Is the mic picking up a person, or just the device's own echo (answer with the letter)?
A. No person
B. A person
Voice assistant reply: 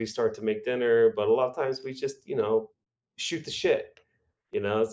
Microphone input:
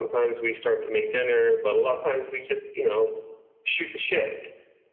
A